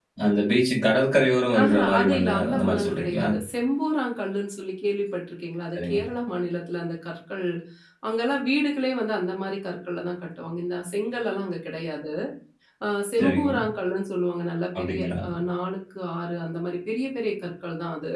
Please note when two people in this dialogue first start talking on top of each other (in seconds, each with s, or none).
1.6 s